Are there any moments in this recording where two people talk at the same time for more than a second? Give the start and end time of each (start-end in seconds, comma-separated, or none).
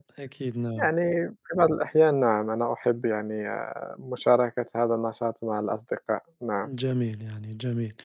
none